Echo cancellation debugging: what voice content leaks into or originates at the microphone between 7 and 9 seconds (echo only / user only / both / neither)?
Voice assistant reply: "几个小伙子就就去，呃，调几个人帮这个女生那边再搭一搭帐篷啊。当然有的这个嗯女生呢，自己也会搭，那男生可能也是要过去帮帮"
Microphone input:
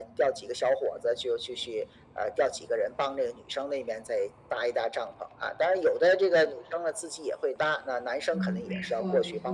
both